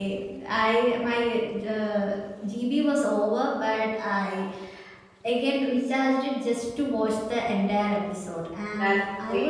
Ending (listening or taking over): listening